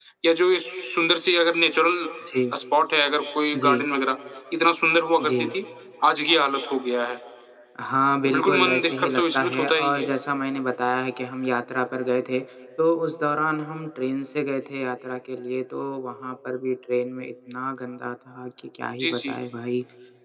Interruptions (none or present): present